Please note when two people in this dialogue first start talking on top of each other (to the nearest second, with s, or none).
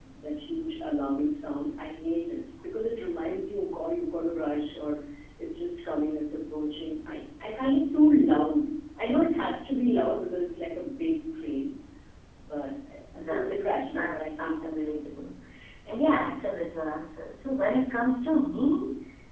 13 s